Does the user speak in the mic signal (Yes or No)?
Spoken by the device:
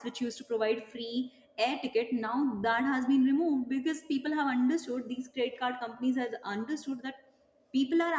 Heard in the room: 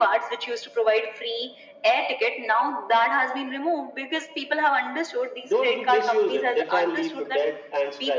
Yes